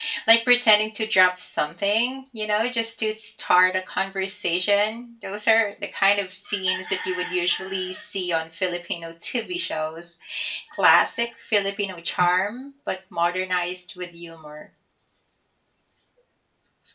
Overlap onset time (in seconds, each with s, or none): none